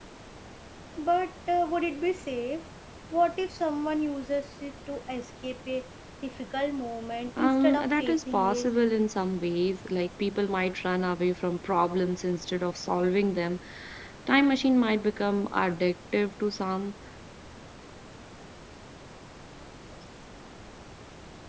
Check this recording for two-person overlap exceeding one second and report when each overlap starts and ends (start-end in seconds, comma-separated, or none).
7.4-8.7